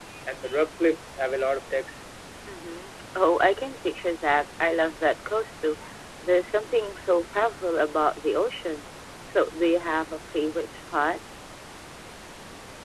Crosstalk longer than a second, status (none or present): none